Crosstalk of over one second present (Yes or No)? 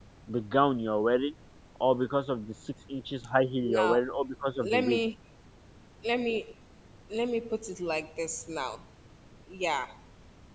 No